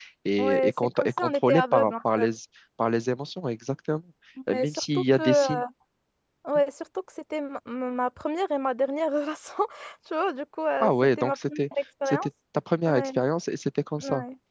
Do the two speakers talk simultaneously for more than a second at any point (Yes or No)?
Yes